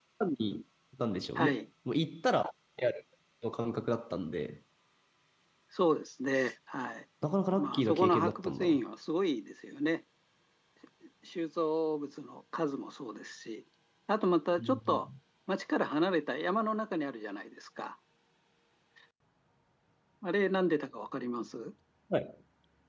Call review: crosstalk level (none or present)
present